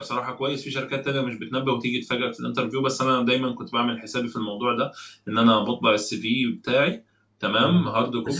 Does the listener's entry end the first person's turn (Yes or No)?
Yes